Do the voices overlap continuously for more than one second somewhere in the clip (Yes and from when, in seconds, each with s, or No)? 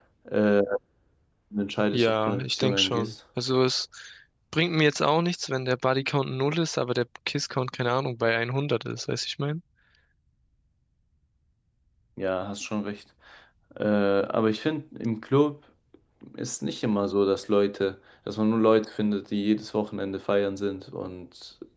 Yes, from 1.9 s